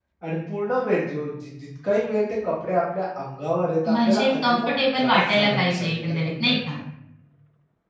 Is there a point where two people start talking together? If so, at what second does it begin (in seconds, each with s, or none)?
3.8 s